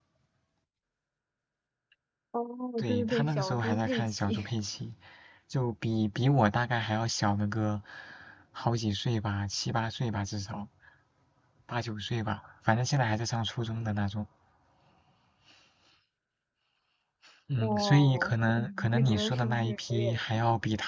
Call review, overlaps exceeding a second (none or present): present